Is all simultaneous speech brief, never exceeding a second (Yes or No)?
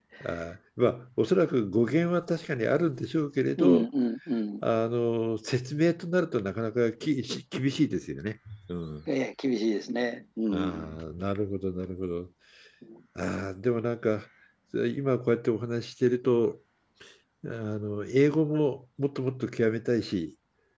Yes